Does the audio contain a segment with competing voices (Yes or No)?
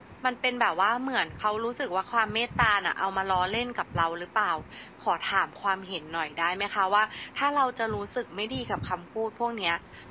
No